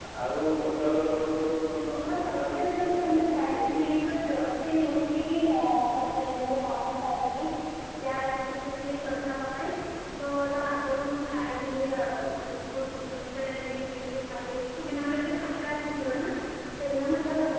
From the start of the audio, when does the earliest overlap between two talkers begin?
2.0 s

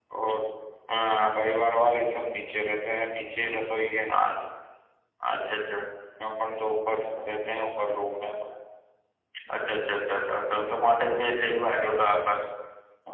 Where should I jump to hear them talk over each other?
none

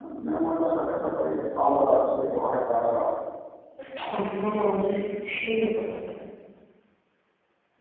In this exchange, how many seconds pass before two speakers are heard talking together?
none

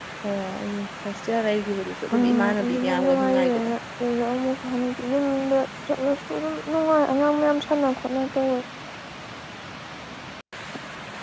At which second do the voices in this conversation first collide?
2.1 s

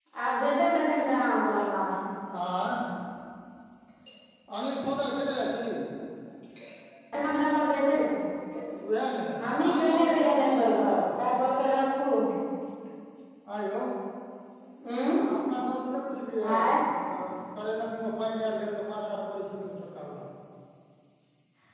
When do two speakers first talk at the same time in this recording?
9.4 s

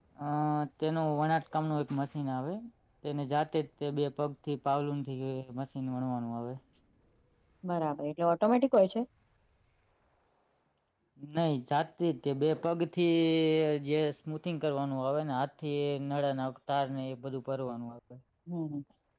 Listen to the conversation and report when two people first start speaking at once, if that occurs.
none

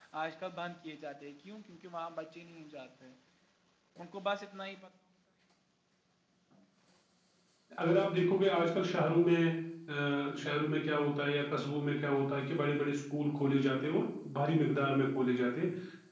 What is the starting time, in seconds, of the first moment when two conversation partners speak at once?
none

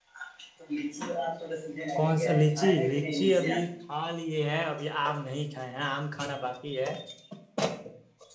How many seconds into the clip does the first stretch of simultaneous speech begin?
2.0 s

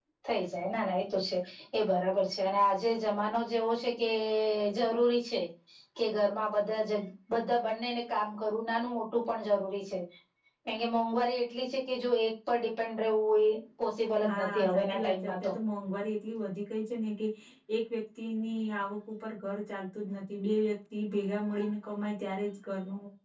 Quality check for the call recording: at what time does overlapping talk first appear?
14.2 s

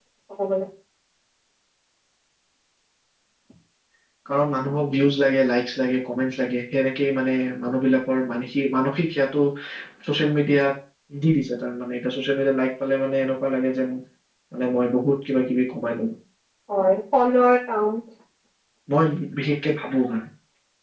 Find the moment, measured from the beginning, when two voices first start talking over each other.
none

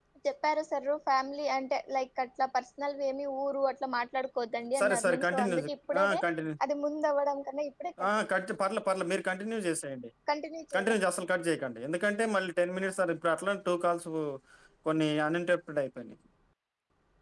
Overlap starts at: 4.8 s

